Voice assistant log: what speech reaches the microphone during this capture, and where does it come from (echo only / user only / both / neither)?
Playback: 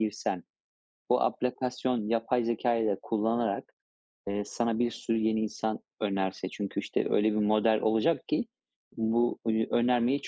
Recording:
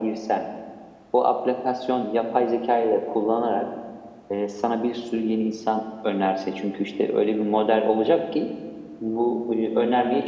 echo only